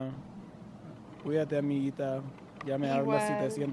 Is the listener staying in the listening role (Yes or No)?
Yes